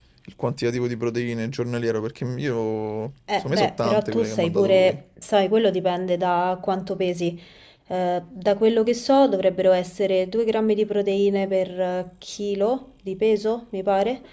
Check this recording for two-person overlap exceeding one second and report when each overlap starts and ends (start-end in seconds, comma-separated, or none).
3.4-5.0